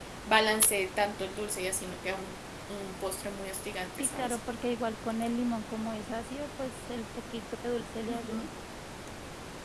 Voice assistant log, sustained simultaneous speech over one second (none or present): none